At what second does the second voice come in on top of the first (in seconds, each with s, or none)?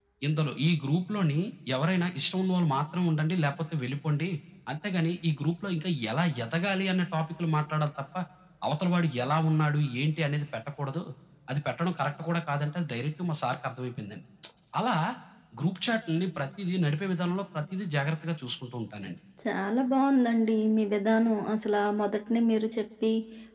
none